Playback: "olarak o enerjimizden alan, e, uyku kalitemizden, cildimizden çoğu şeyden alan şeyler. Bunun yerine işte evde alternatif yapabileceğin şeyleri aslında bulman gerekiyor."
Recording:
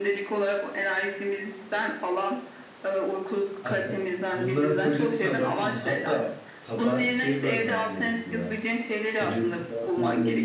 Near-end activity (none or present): present